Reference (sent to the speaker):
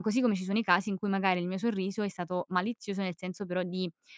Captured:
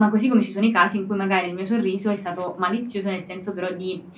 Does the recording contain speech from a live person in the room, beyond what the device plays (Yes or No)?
No